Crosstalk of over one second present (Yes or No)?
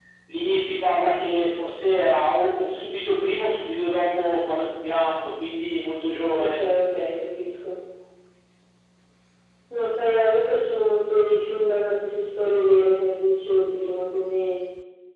No